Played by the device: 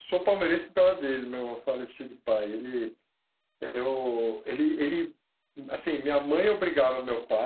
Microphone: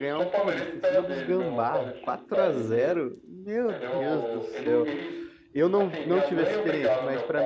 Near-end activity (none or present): present